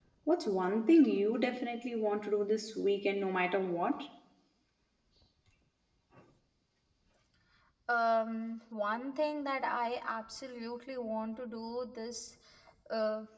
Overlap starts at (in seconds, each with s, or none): none